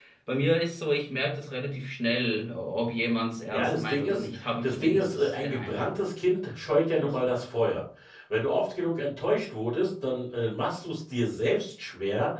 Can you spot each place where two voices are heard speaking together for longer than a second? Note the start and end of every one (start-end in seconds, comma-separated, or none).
3.5-5.9